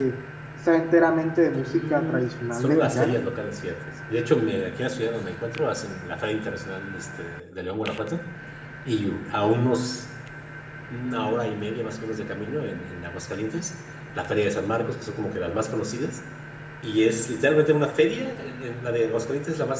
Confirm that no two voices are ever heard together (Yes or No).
No